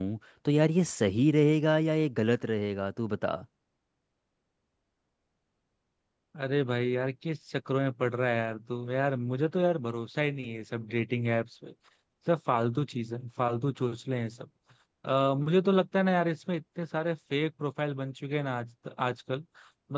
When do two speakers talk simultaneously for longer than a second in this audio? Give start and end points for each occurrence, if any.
none

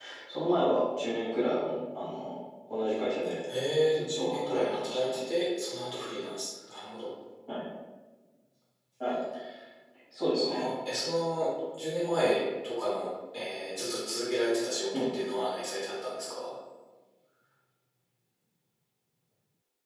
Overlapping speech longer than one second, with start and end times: 3.9-5.2

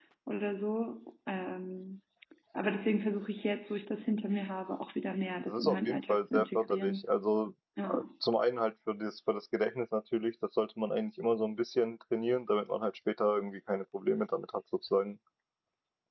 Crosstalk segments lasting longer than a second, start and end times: 5.5-7.0

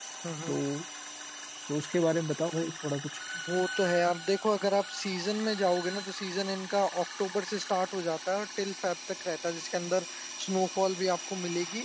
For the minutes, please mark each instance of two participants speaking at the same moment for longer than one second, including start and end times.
none

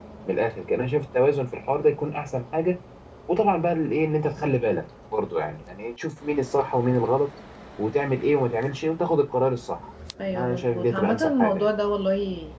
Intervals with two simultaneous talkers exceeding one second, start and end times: 10.4-11.7

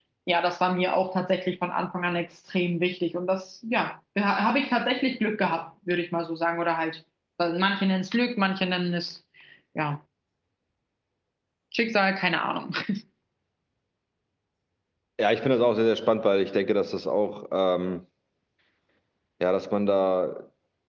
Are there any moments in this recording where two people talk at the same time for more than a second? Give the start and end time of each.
none

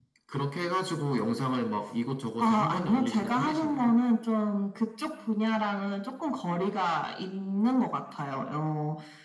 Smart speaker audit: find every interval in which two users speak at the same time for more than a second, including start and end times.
2.4-3.9

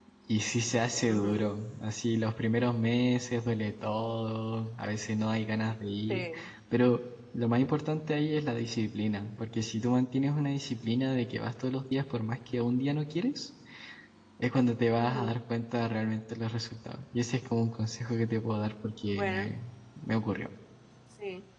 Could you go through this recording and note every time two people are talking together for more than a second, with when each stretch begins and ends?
none

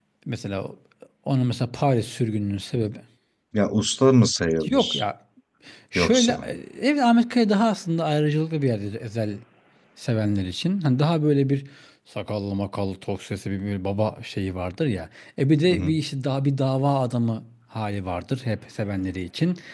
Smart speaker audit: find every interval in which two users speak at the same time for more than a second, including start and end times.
none

